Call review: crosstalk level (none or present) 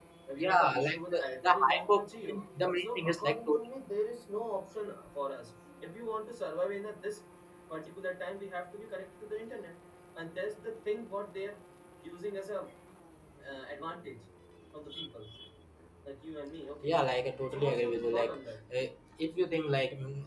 present